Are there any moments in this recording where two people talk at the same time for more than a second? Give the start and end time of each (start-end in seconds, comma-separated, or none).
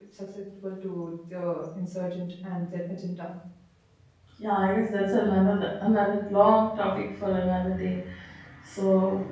none